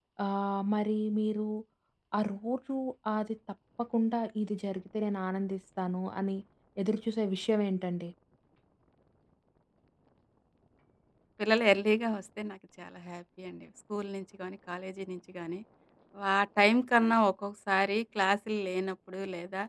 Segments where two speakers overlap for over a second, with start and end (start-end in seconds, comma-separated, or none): none